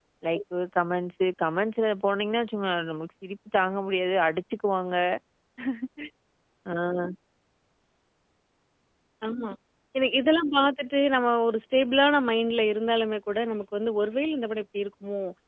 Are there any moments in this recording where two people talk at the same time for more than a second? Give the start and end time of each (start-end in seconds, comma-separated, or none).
none